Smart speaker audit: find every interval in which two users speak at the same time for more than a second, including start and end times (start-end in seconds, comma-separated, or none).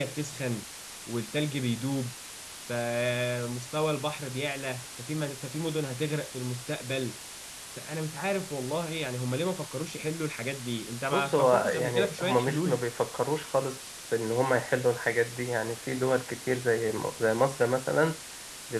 11.1-12.8